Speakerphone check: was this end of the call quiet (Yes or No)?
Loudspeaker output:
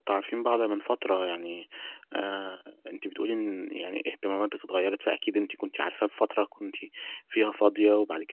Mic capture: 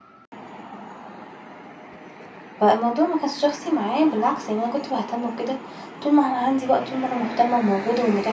No